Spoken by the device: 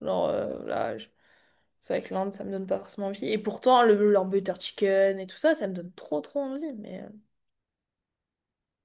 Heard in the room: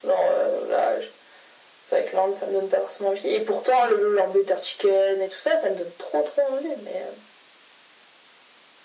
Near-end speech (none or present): none